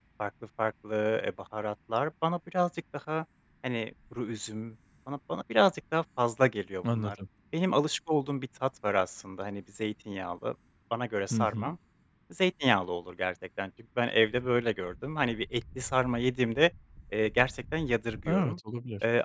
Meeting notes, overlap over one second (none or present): none